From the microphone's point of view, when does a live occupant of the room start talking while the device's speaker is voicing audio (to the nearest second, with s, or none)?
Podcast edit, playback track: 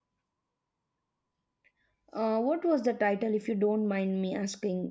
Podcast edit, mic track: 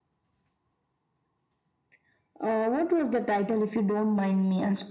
none